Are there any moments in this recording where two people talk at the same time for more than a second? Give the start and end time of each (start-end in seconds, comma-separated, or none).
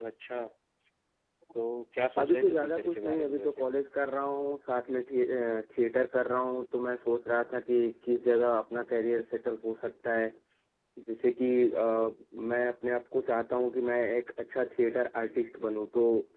2.2-3.5